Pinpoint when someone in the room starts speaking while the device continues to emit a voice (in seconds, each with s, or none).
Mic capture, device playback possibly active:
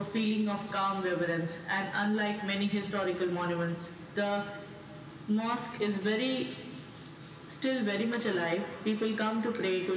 none